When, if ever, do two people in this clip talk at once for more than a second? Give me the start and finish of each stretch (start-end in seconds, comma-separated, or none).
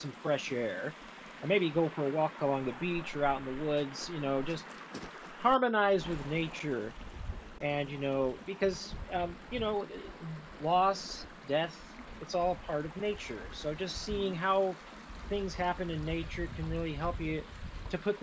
none